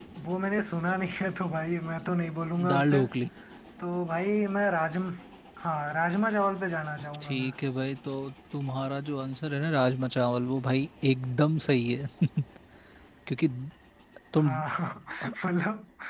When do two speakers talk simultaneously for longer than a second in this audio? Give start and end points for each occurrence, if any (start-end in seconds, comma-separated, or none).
none